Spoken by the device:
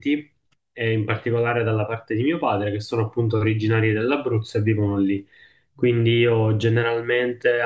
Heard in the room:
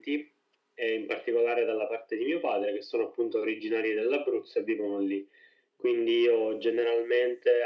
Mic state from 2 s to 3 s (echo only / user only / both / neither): echo only